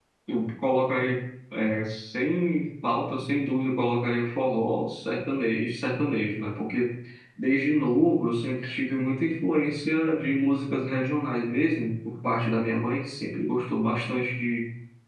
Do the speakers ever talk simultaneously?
No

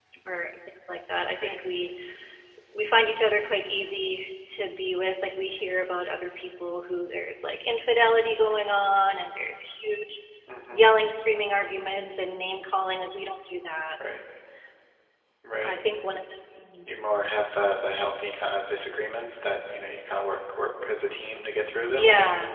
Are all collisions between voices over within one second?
Yes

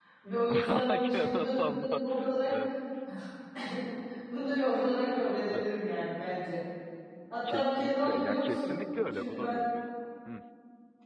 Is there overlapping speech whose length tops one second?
Yes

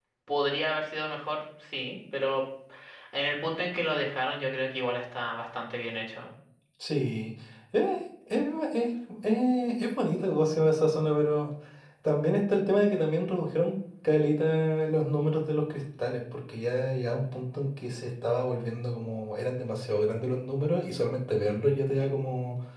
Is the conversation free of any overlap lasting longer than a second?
Yes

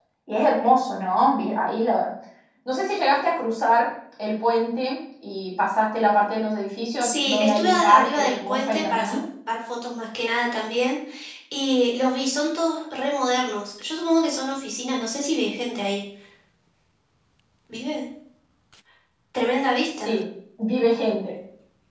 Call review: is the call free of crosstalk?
No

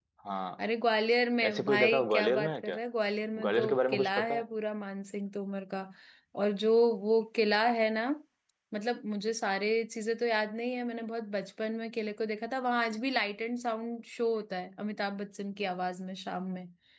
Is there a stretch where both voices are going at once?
Yes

